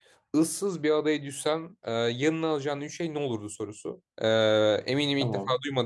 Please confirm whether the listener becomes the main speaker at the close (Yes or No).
No